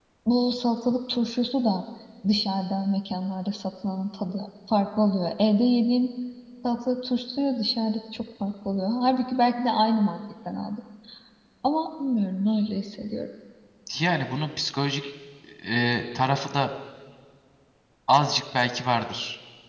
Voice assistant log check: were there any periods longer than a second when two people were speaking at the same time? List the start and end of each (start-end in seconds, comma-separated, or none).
none